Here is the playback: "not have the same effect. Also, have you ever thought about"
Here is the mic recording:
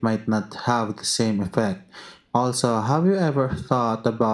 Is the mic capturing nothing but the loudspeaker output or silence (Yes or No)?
Yes